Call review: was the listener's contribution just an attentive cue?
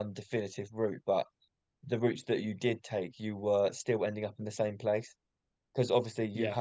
Yes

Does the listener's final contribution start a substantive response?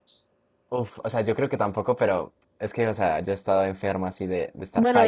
Yes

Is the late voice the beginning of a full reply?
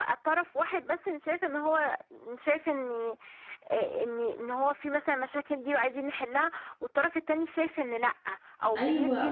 Yes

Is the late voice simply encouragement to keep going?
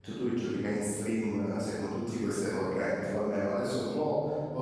Yes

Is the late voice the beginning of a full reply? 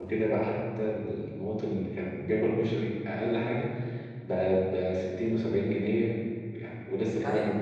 Yes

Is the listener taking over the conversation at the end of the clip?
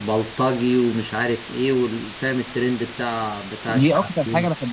Yes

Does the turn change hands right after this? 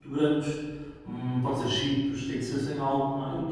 Yes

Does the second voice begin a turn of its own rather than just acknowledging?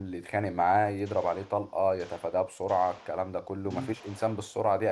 No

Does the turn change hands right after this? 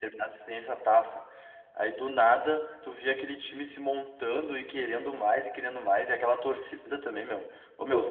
No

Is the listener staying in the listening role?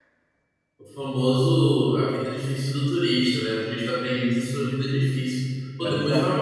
Yes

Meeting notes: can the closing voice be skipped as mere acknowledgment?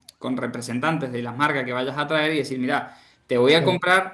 Yes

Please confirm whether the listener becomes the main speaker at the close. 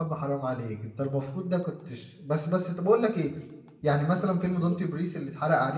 No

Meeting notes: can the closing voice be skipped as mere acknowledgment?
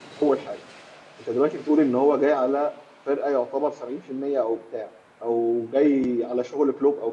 Yes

